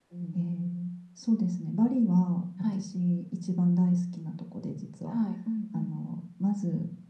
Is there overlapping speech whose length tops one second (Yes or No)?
No